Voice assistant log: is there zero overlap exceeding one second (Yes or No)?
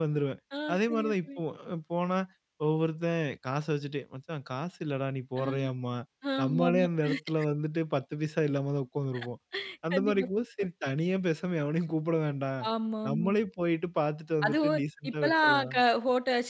No